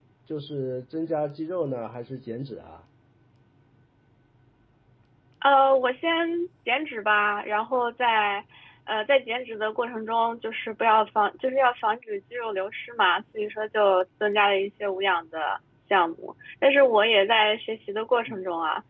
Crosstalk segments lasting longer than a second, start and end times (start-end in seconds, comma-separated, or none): none